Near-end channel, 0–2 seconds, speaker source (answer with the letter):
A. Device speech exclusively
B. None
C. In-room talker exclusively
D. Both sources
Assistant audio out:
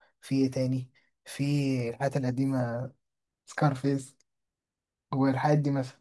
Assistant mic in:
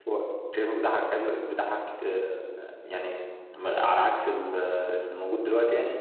C